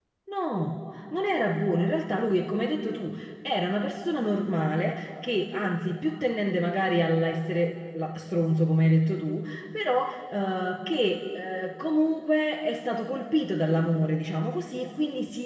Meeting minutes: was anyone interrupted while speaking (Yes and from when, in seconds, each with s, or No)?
No